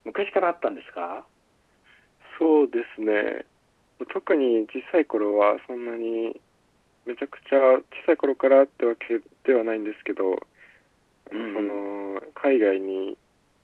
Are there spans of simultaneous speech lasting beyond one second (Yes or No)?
No